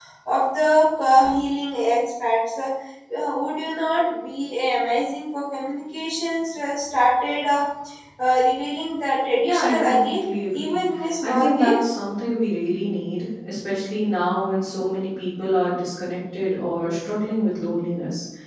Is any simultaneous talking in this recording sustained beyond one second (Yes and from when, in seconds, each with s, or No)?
Yes, from 9.4 s